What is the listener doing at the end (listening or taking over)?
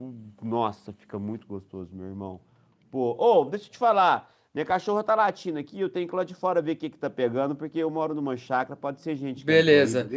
taking over